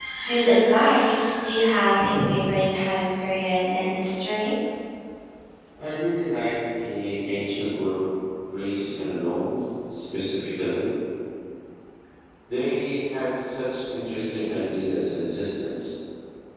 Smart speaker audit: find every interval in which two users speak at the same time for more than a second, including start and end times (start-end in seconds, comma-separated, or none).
none